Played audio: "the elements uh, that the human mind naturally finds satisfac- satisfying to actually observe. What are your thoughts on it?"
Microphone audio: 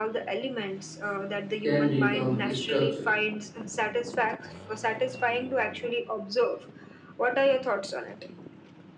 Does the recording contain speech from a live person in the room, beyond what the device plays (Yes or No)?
Yes